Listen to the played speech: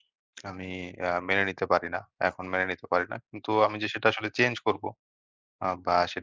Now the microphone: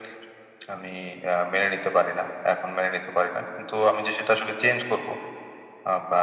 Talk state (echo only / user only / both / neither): echo only